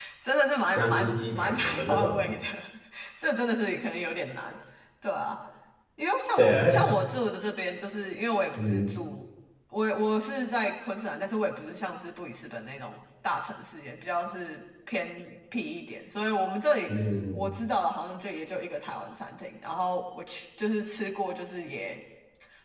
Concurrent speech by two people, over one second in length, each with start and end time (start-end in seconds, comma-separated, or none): 0.7-2.2